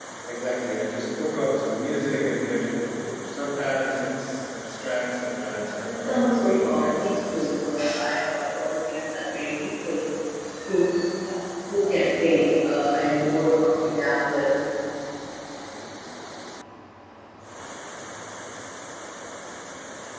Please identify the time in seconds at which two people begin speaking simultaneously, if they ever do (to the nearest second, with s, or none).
6 s